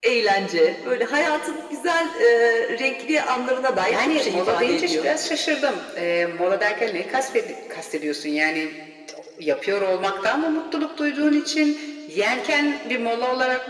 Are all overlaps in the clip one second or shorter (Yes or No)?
No